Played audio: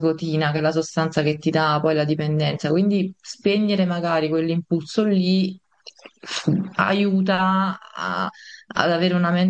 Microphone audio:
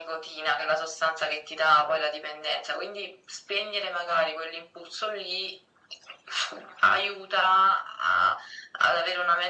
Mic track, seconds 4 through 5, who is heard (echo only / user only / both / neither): echo only